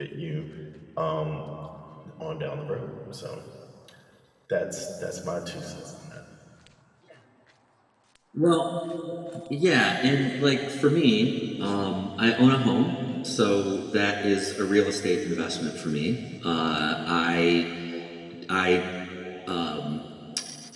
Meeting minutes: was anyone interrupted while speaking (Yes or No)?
No